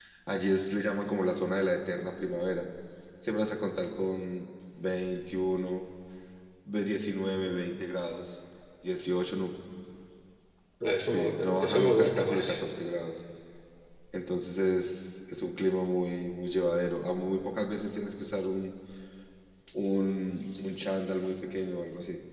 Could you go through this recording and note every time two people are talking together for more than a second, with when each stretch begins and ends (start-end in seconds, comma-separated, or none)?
11.1-12.6